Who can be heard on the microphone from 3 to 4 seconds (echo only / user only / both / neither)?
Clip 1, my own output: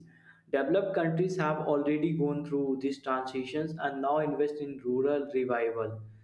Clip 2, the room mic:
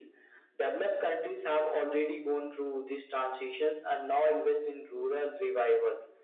echo only